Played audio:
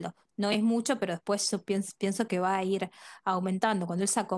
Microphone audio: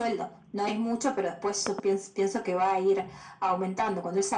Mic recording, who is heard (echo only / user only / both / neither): echo only